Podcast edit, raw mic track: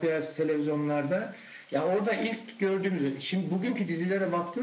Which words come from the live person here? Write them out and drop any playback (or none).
none